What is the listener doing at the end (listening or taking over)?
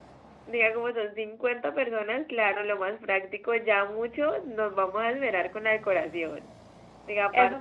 taking over